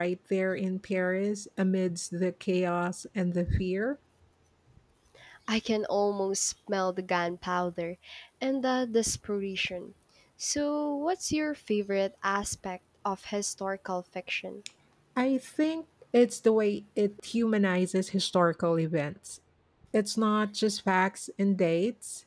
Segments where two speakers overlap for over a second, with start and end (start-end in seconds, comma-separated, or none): none